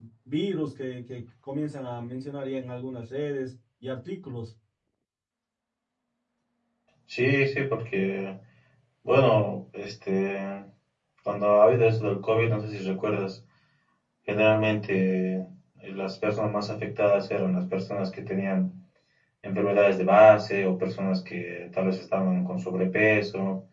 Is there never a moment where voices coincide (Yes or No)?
Yes